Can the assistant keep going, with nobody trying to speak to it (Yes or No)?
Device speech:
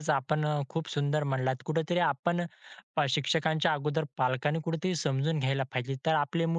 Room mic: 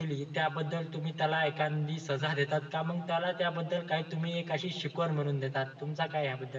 No